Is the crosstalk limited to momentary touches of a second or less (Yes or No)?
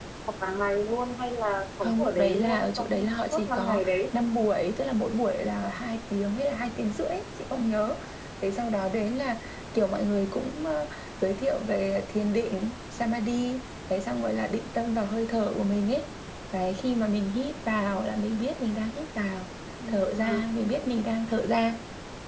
No